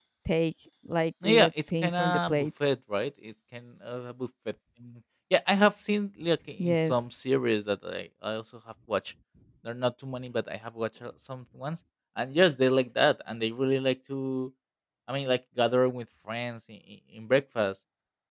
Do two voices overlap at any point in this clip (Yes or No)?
Yes